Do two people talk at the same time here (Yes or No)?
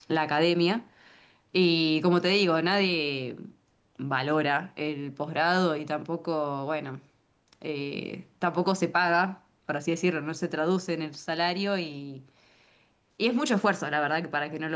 No